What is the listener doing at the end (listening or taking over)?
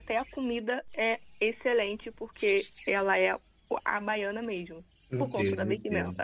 taking over